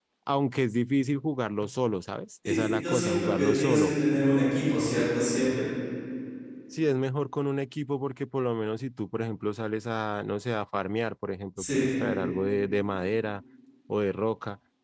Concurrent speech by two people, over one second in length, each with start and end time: 2.5-3.9

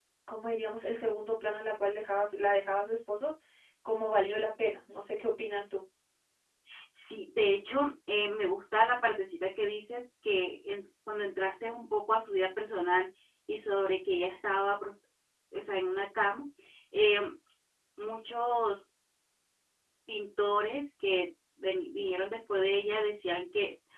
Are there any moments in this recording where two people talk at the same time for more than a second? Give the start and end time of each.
none

